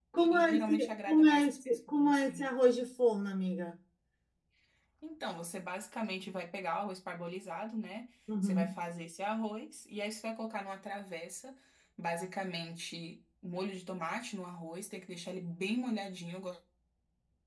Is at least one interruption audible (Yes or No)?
Yes